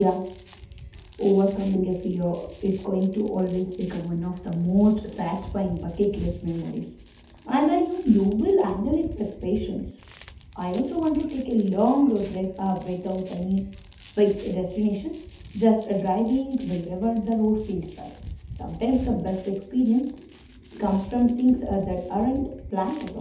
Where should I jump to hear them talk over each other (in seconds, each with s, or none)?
none